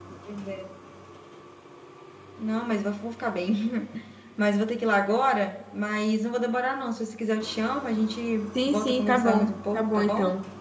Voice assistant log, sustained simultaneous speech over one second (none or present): present